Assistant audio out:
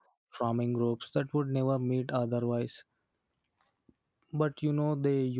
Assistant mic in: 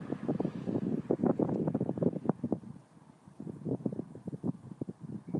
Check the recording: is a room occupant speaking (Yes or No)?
No